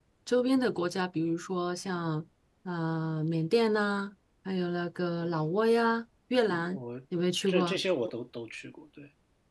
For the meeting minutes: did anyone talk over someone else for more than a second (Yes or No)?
No